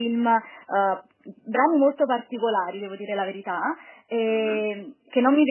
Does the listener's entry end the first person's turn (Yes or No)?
No